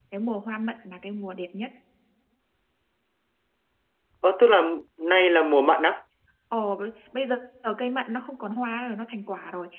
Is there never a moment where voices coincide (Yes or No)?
Yes